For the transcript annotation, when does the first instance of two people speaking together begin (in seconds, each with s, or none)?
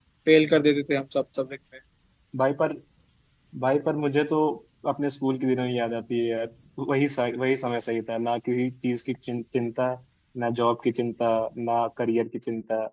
none